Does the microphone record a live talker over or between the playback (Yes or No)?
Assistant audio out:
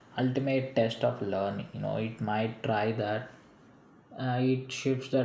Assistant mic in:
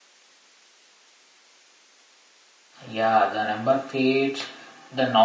Yes